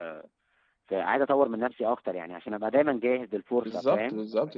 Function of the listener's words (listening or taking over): taking over